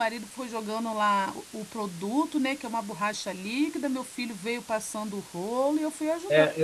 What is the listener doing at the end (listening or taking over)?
taking over